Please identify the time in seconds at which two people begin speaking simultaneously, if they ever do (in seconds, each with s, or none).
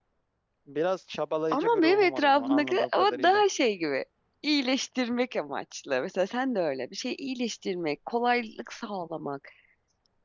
1.5 s